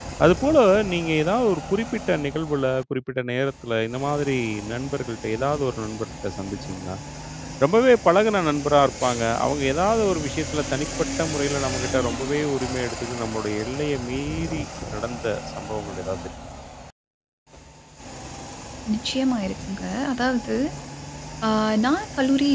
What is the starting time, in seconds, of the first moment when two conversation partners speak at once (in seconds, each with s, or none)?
none